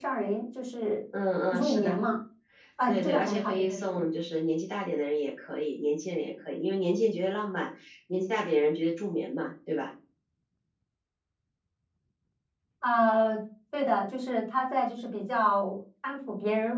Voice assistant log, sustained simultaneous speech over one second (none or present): present